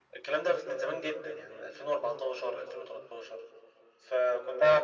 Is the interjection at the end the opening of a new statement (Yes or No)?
No